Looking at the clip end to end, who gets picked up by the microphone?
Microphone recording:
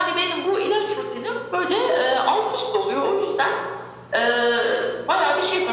echo only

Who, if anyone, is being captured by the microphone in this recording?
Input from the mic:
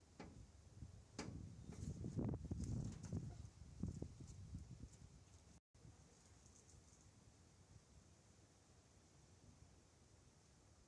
neither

